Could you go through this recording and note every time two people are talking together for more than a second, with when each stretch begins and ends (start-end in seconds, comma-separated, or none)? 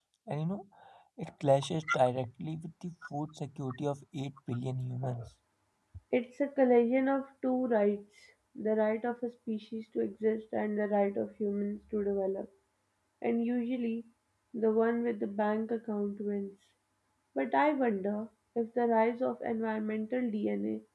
none